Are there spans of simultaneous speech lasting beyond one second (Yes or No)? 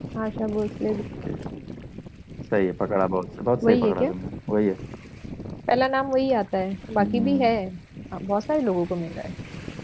No